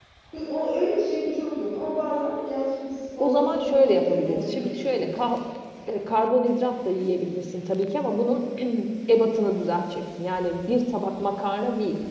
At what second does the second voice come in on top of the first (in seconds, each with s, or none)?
3.2 s